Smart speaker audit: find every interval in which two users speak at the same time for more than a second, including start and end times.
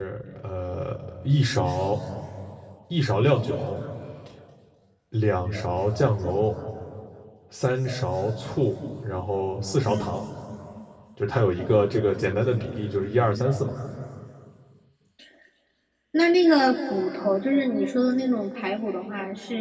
none

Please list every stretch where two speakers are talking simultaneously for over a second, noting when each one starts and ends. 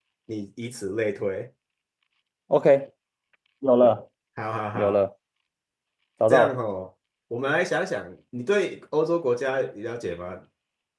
none

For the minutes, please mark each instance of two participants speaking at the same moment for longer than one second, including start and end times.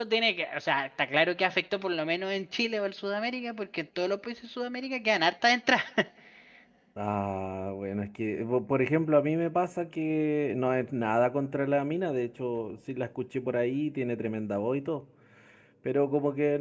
none

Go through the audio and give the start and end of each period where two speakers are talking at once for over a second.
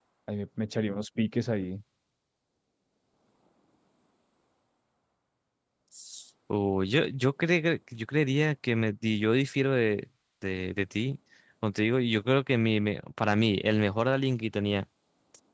none

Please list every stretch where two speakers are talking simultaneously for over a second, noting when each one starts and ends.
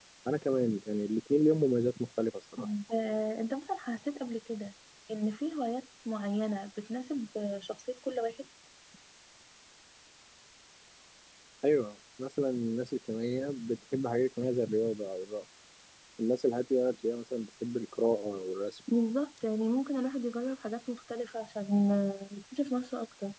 none

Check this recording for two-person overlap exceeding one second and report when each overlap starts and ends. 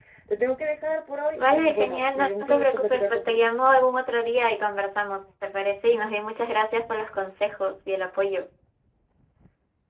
1.4-3.4

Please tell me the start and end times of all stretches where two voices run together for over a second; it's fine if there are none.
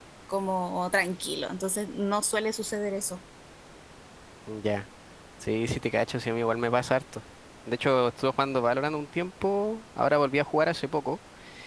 none

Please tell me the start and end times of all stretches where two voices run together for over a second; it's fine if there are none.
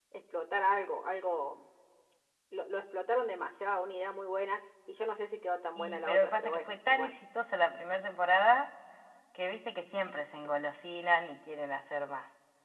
5.8-7.1

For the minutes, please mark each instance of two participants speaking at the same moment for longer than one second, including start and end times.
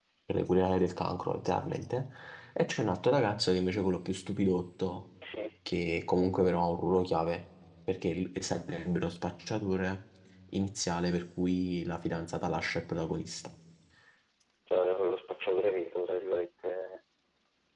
none

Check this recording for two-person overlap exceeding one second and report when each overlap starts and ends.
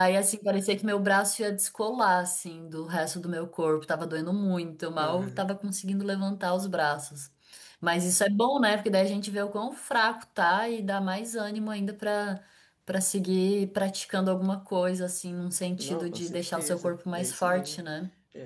15.8-17.8

